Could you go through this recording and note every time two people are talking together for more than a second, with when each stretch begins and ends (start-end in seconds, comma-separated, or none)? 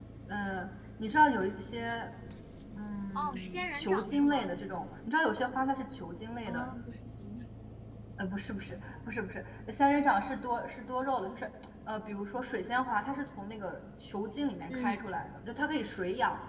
3.1-4.5